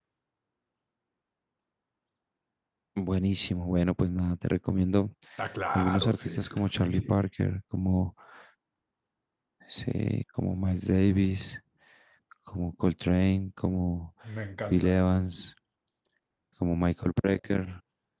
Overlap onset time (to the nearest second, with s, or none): 6 s